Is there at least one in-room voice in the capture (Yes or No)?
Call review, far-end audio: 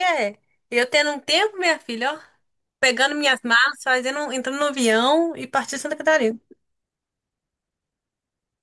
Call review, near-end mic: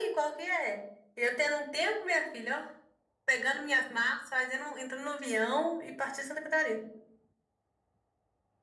No